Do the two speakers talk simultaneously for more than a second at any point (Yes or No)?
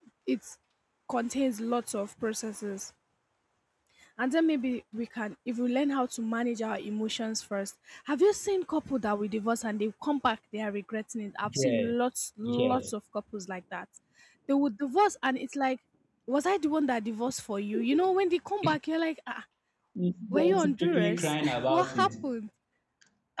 Yes